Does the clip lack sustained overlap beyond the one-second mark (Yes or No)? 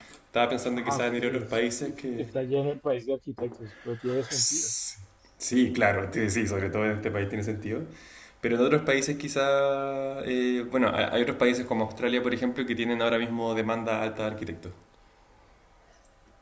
No